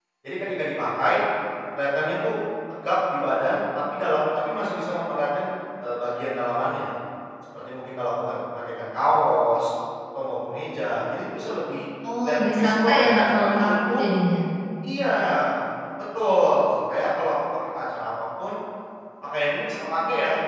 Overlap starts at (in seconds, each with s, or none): 12.2 s